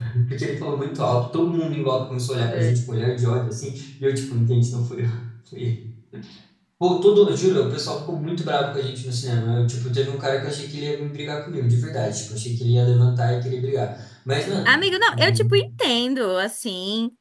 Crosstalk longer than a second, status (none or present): none